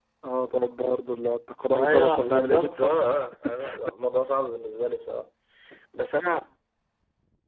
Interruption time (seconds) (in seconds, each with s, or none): 1.7 s